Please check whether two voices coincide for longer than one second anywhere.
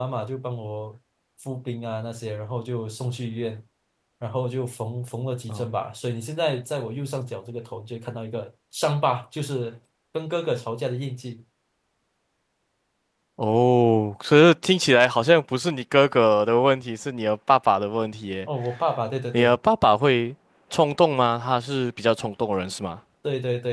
No

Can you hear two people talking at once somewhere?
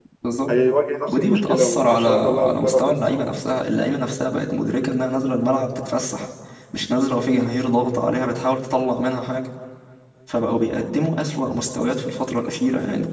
Yes, from 1.2 s

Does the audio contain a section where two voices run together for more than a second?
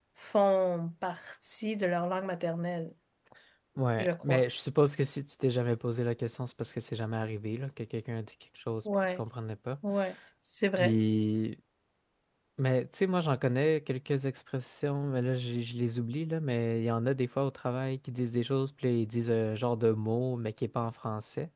No

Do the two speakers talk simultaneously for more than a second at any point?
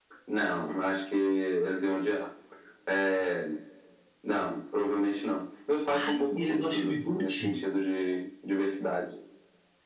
Yes, from 5.9 s

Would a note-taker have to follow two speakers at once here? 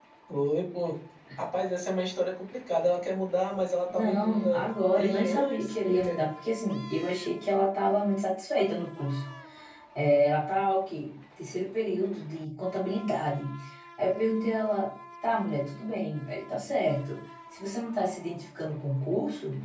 Yes, from 3.9 s

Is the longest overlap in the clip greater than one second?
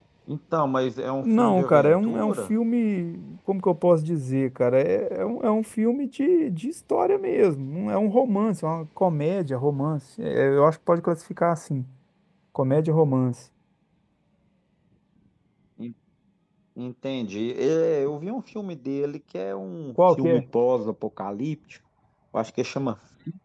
Yes, from 1.2 s

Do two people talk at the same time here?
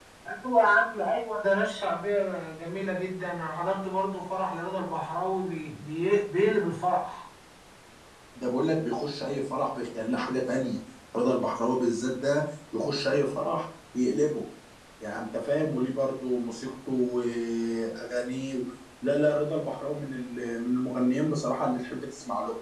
No

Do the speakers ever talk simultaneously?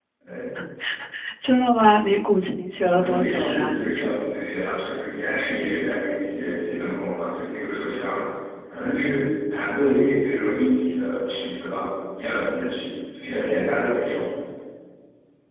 Yes, from 2.8 s

